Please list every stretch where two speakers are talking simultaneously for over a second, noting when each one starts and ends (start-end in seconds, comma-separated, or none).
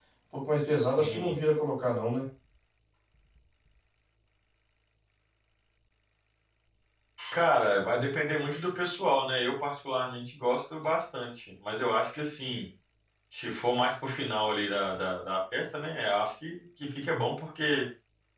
none